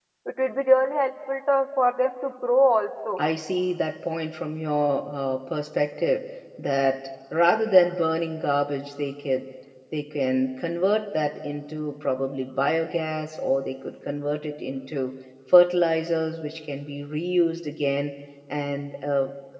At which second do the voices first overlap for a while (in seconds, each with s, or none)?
none